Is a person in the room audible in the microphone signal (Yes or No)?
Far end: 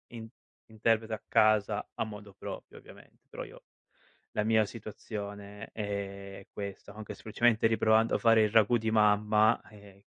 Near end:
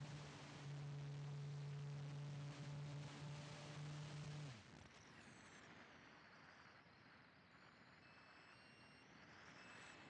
No